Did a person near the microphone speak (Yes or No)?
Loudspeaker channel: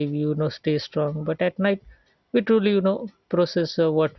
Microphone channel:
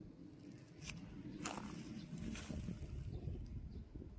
No